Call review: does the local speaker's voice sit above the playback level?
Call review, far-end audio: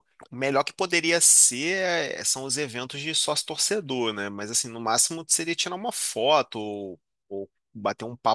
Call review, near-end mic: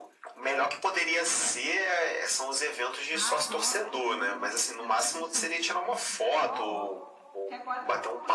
No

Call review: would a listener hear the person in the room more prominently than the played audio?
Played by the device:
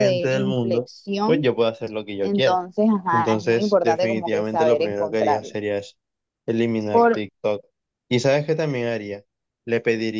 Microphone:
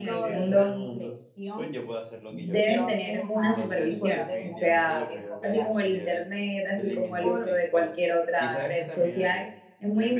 Yes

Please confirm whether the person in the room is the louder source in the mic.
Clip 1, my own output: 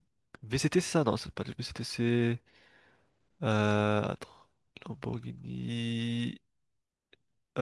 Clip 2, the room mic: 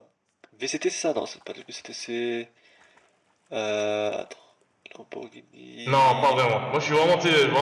Yes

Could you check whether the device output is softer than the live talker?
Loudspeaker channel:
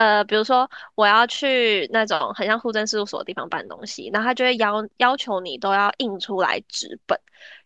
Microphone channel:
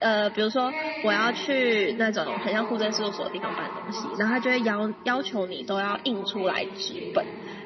No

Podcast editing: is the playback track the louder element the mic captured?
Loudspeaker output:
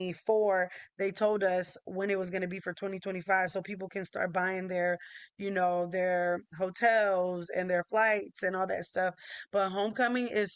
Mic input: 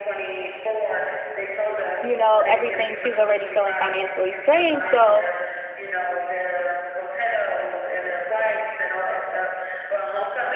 No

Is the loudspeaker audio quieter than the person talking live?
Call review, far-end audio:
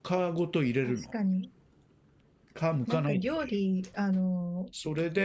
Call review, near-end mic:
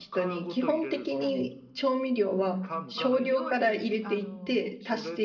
Yes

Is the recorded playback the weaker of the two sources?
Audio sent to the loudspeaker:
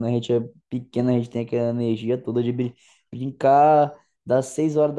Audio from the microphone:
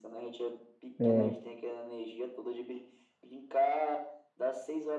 Yes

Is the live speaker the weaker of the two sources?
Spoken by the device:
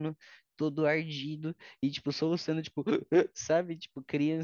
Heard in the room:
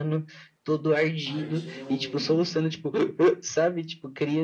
Yes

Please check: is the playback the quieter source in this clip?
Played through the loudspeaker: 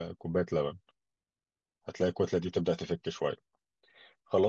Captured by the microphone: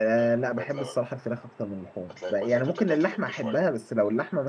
Yes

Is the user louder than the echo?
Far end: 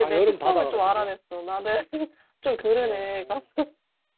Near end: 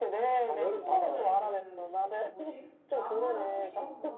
No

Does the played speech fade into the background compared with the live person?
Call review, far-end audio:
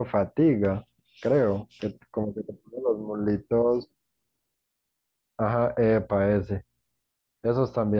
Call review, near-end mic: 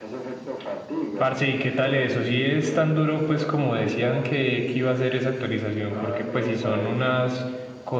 Yes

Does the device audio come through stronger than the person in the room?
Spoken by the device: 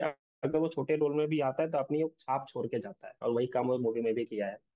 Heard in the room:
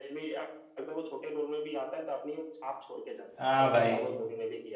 No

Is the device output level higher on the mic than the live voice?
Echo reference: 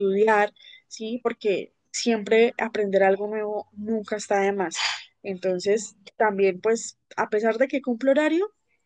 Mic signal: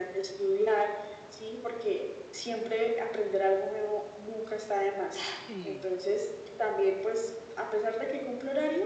Yes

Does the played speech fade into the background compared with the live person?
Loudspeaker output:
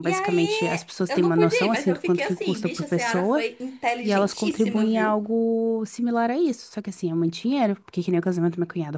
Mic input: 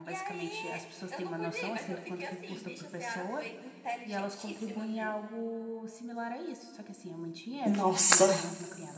Yes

